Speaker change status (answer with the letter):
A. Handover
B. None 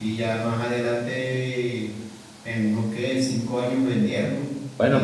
B